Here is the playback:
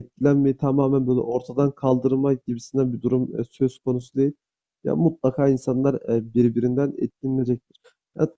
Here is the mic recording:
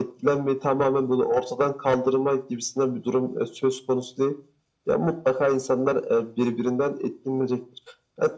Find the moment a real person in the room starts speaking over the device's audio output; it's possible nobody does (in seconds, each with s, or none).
none